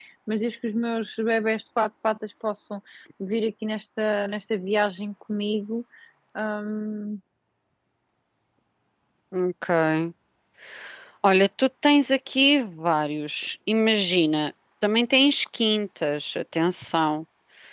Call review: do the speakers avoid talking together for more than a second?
Yes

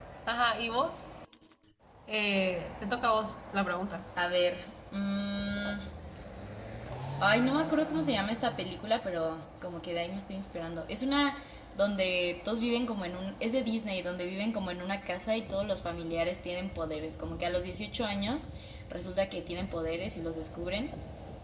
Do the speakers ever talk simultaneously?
No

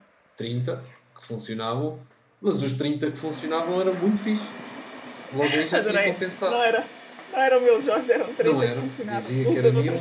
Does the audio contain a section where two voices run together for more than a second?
Yes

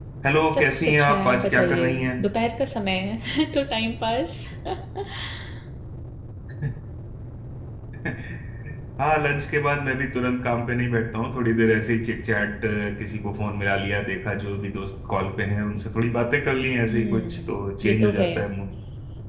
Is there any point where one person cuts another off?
Yes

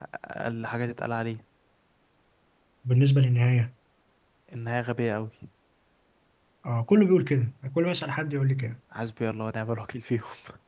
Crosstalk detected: No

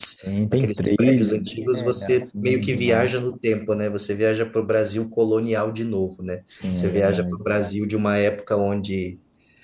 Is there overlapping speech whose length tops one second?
Yes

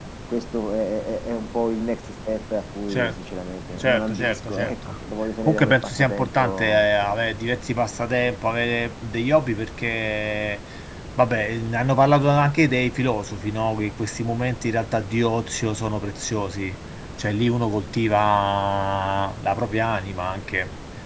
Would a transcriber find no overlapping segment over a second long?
No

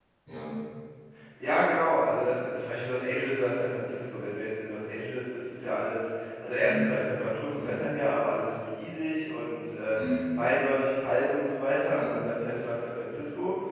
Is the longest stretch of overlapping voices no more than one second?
Yes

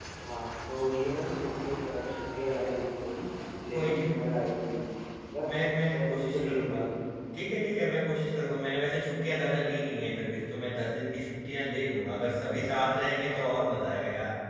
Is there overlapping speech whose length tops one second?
Yes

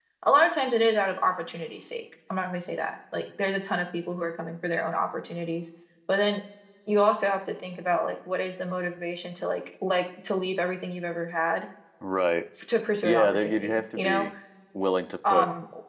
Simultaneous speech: Yes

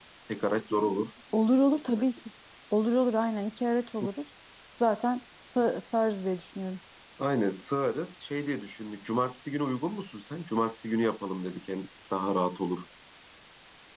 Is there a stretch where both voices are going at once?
No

